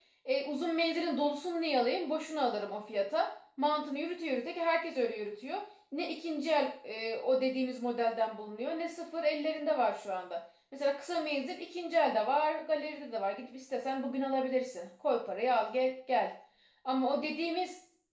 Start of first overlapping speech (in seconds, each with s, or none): none